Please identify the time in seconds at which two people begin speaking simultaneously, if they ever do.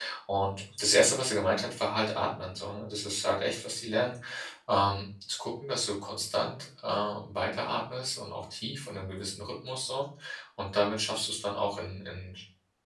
none

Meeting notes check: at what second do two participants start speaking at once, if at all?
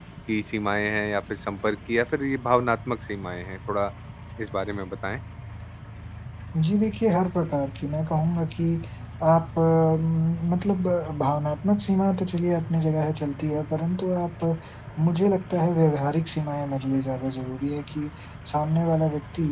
none

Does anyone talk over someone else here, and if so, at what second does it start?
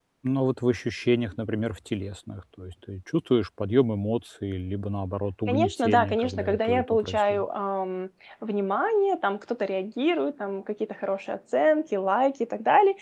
5.5 s

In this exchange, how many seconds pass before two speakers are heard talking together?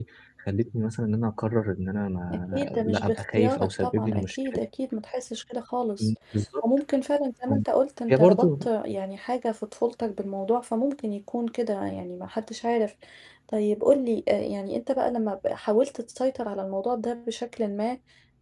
2.3 s

